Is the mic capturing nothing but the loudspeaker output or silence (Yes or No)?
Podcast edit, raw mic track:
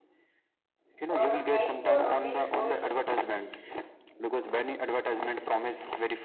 No